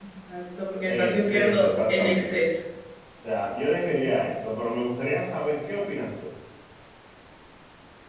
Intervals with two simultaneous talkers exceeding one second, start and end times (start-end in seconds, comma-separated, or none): 0.9-2.4